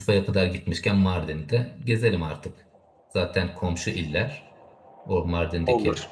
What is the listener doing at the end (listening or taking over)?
listening